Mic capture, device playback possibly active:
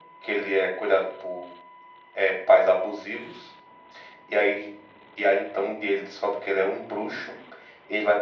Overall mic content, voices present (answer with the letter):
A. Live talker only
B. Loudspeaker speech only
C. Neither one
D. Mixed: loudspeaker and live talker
B